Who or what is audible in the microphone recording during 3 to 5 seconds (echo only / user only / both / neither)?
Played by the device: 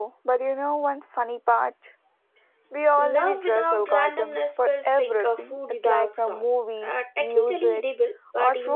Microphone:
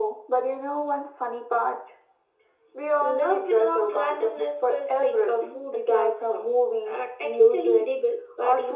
echo only